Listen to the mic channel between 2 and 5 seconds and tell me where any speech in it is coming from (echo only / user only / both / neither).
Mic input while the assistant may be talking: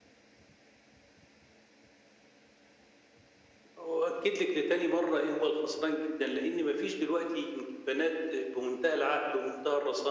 echo only